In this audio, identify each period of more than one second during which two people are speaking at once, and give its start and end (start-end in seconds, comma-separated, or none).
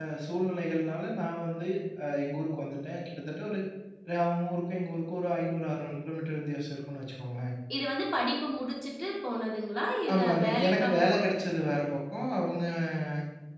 10.1-11.4